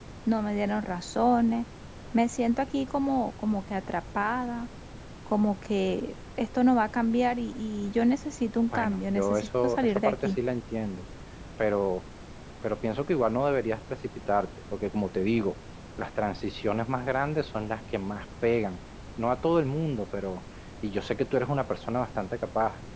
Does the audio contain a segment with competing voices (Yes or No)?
Yes